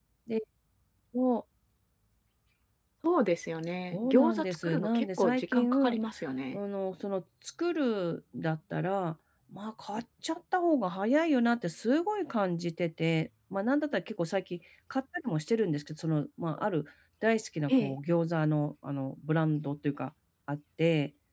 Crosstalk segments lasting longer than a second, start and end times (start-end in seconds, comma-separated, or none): 3.9-6.0